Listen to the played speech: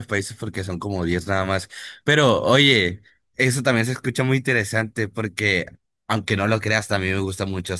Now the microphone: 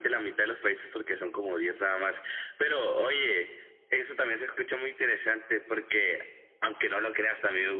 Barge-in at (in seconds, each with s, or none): none